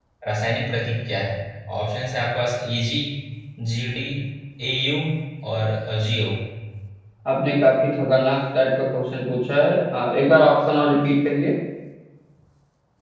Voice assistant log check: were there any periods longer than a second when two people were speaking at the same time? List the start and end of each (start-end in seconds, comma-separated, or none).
none